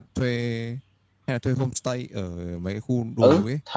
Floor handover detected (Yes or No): Yes